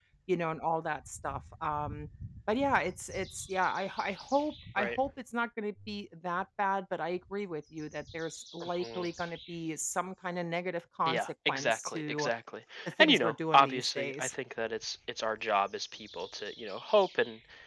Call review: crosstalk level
present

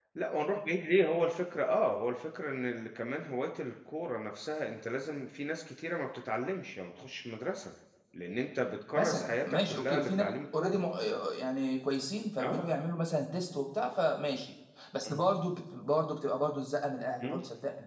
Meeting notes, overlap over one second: present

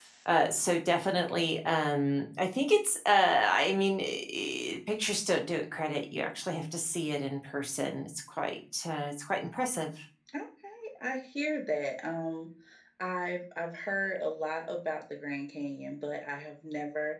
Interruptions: none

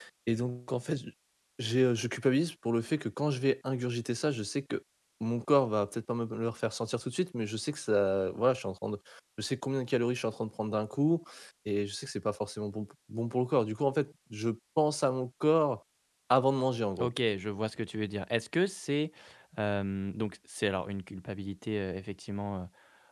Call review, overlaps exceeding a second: none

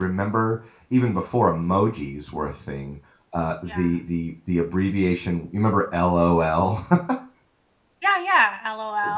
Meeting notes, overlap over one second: none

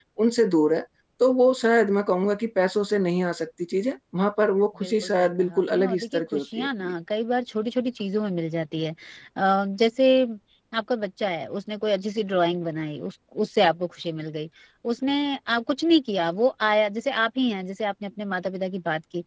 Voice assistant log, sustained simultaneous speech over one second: present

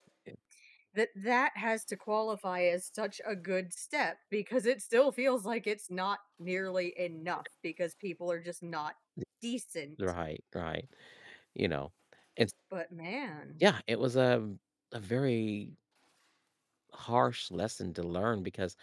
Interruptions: none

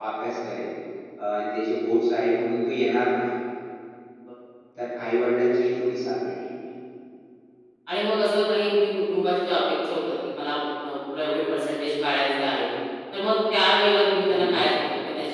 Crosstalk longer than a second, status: none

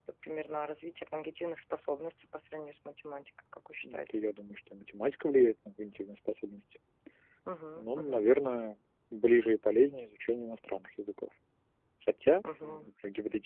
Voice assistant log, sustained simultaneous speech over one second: none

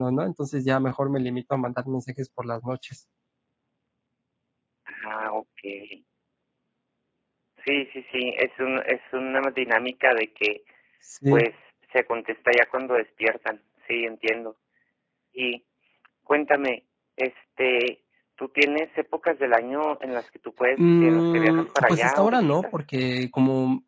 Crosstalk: present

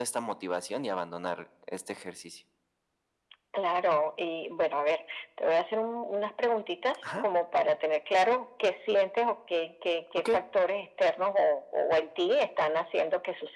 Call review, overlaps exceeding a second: none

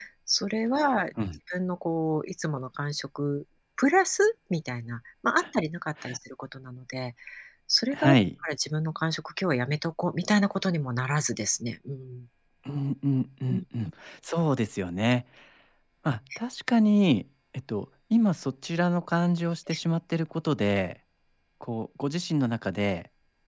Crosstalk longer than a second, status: none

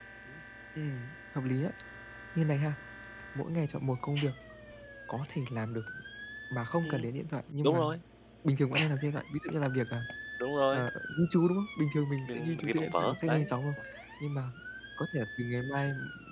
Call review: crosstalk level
present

